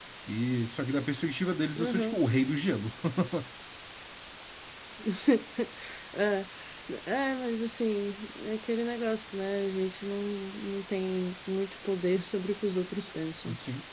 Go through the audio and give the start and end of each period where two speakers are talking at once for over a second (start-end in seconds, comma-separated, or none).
none